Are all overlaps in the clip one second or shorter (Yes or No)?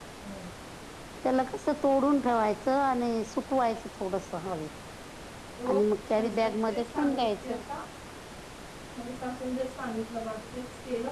No